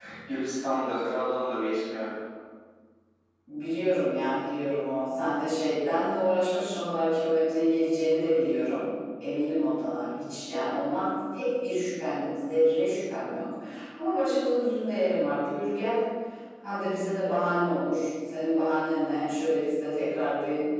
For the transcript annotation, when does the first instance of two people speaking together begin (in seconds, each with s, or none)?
none